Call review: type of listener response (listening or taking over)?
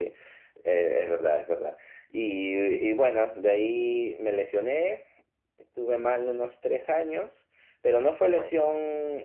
listening